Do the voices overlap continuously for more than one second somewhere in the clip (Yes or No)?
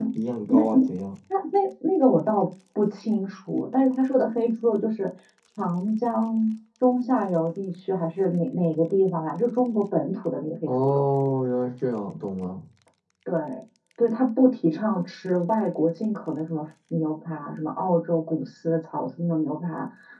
No